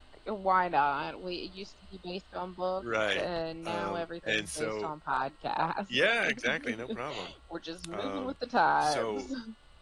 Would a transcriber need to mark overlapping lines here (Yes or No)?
Yes